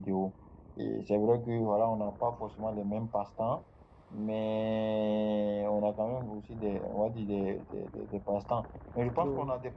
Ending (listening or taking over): listening